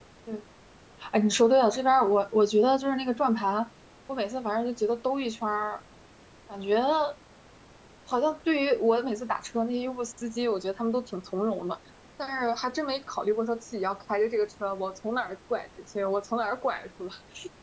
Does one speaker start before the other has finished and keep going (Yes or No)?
No